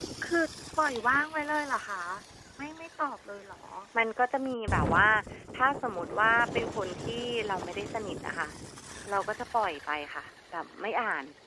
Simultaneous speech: No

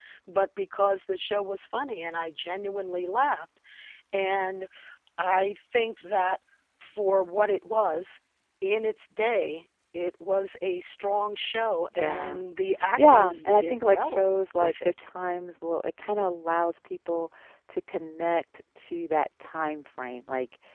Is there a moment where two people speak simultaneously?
Yes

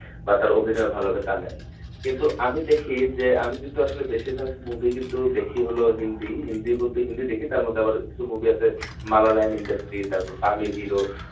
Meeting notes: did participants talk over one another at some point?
No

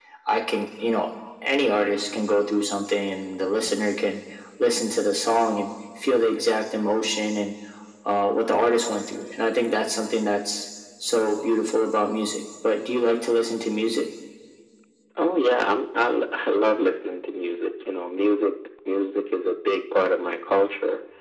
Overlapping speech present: No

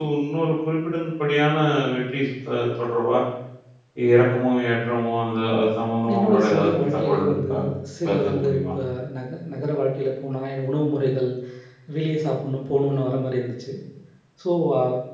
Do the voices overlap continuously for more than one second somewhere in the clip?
Yes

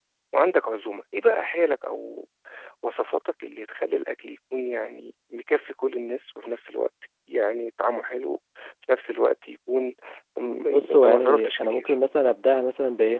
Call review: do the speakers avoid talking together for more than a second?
No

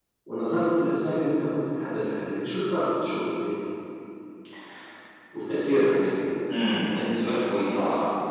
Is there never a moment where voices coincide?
Yes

